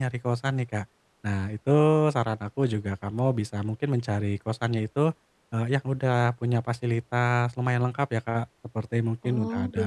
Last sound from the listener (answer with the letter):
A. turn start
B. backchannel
B